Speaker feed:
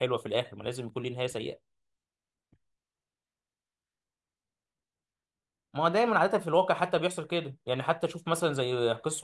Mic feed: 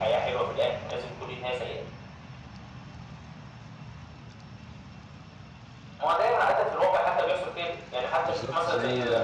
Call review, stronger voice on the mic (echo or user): echo